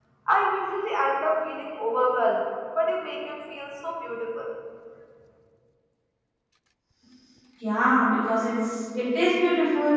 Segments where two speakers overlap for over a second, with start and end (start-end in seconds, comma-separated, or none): none